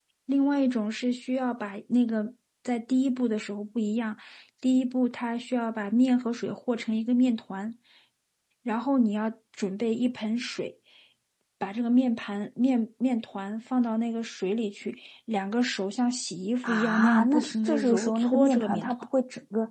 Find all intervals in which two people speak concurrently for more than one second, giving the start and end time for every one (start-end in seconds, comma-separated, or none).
16.6-18.9